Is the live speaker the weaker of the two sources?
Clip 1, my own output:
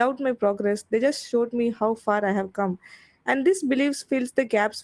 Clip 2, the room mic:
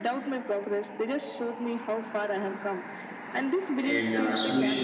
No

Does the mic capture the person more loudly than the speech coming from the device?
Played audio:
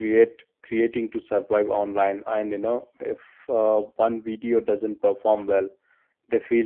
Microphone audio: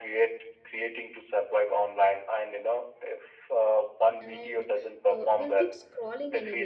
No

